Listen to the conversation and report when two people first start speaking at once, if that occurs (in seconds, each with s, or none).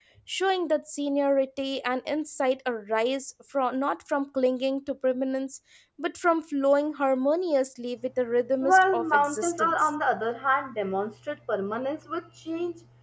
8.6 s